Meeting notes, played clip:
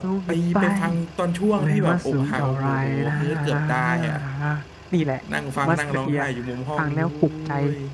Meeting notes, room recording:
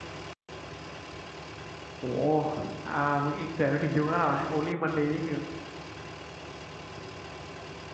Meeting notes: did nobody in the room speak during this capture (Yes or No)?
No